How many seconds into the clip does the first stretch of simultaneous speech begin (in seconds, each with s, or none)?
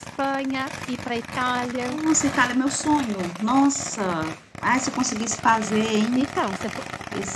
none